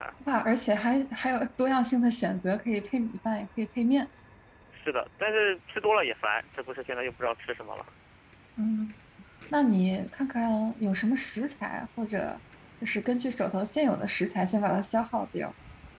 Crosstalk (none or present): none